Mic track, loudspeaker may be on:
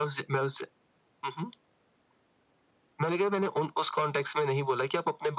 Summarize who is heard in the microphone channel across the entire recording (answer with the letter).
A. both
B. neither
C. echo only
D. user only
C